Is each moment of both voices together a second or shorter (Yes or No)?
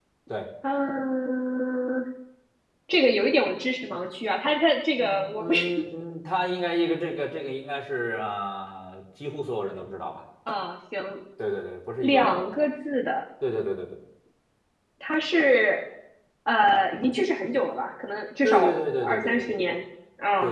No